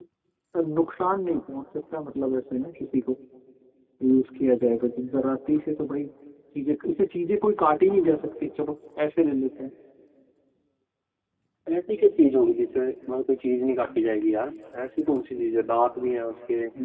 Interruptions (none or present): none